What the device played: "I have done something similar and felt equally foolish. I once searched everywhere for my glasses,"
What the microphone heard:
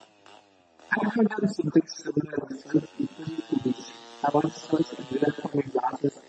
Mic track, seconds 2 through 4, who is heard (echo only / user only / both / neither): echo only